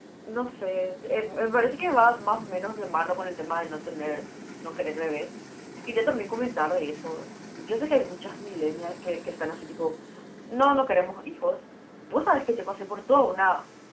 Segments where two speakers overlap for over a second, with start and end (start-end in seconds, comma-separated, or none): none